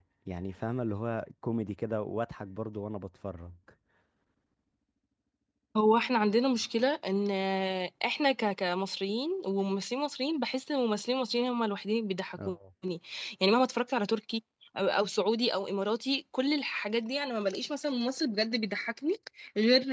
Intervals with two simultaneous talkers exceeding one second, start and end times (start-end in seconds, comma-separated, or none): none